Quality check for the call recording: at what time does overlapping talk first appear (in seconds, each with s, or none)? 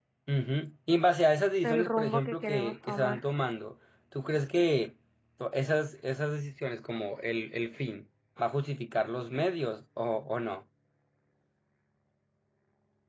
1.6 s